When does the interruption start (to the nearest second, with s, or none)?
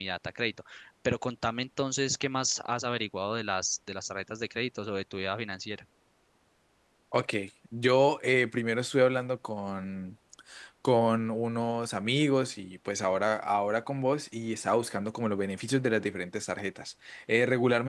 none